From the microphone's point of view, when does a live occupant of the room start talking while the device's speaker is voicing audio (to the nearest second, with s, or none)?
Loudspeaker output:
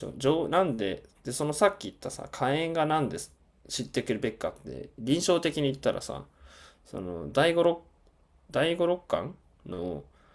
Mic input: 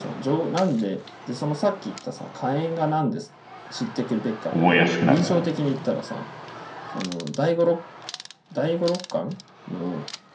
4 s